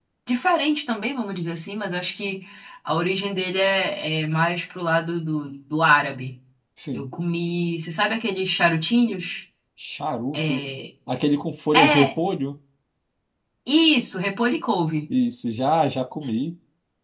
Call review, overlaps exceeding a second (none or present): none